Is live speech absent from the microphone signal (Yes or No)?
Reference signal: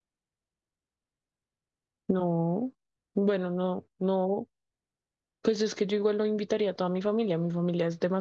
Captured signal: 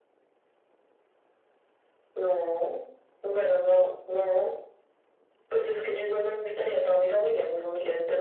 Yes